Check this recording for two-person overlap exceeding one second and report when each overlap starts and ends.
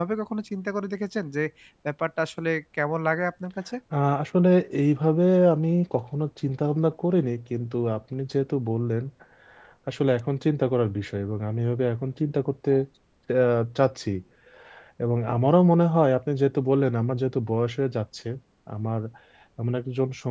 none

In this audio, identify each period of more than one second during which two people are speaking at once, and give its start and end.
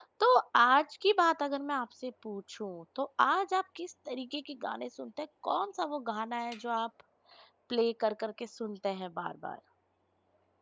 none

